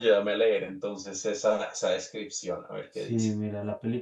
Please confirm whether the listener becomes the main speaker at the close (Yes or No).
Yes